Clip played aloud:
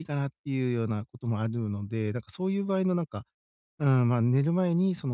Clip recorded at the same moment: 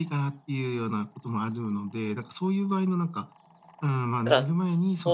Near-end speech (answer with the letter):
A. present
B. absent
A